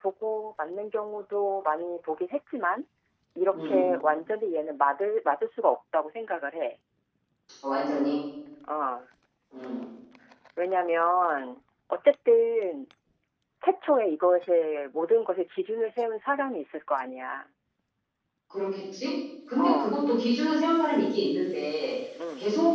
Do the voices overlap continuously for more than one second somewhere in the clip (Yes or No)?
No